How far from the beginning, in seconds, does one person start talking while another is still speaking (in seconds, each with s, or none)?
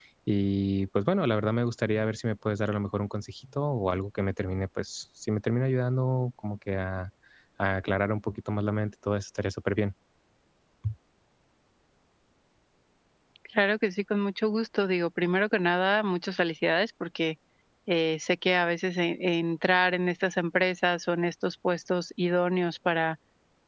none